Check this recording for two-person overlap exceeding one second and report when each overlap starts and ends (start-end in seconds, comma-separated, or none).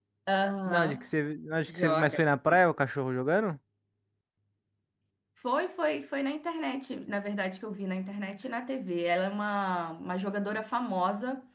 none